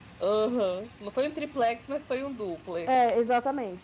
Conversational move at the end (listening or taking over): taking over